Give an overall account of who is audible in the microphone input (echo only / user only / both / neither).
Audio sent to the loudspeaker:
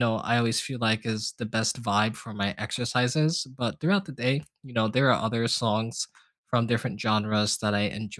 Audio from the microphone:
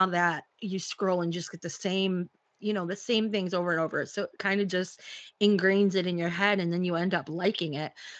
user only